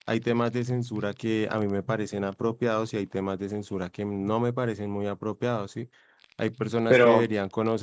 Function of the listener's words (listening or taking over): listening